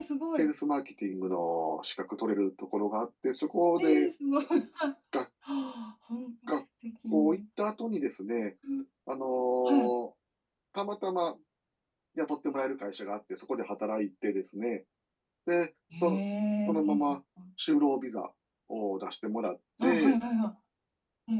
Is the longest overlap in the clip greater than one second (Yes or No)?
No